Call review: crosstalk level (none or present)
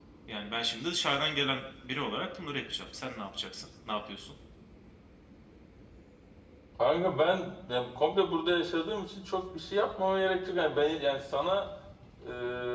none